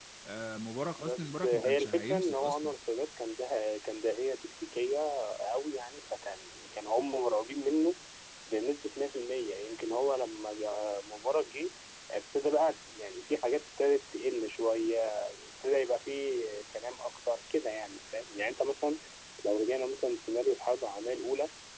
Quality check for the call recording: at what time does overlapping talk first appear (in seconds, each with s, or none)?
1.0 s